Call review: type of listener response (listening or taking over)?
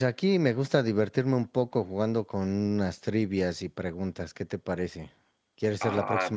taking over